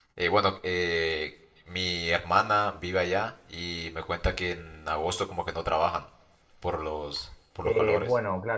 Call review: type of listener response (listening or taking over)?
taking over